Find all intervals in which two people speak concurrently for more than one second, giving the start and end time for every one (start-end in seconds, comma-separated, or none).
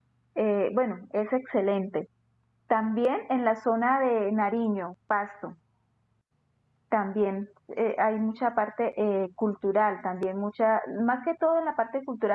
none